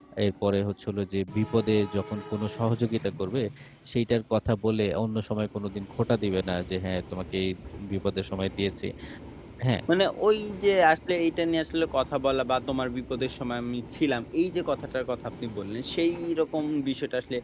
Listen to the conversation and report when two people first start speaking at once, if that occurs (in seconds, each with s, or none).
none